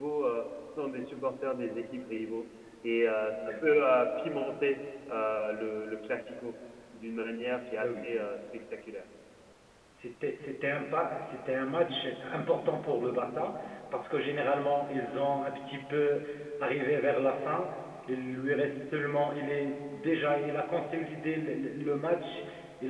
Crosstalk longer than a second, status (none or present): none